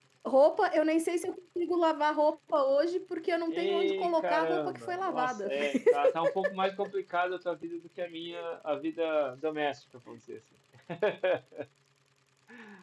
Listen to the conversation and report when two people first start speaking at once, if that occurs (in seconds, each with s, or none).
3.5 s